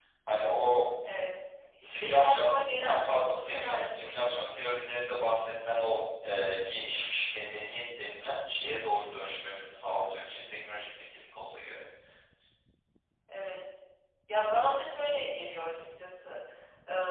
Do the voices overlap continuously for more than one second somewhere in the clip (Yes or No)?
Yes